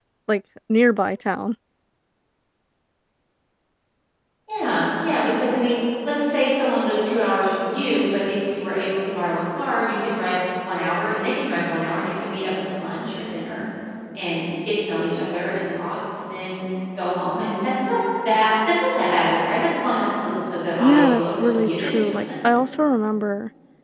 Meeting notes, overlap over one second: present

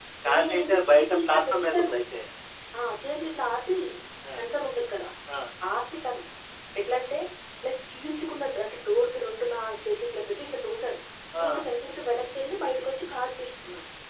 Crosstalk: present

